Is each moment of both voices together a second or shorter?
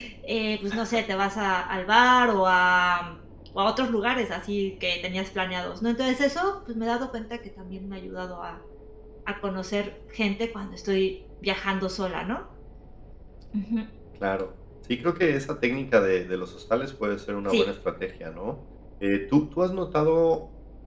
Yes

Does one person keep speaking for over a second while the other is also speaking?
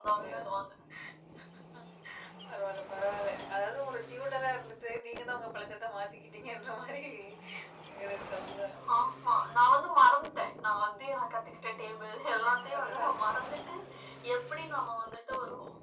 No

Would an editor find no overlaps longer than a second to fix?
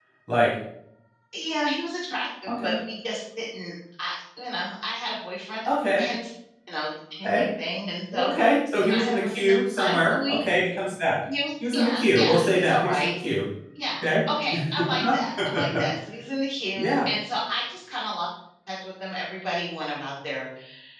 No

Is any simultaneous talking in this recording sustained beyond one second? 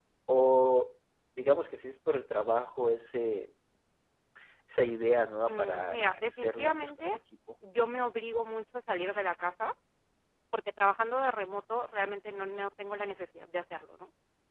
Yes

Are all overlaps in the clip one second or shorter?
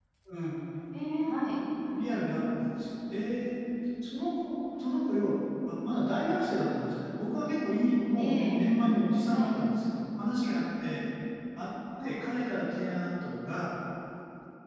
Yes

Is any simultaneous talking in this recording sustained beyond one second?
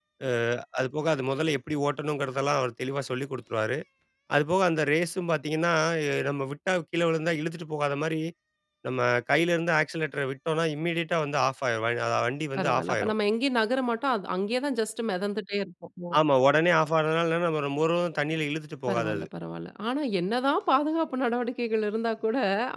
No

